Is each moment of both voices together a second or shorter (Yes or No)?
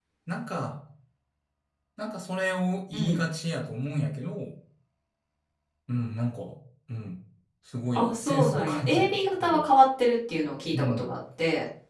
No